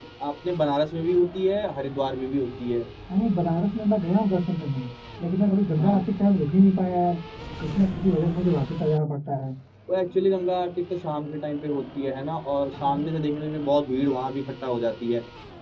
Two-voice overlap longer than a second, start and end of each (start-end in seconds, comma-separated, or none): none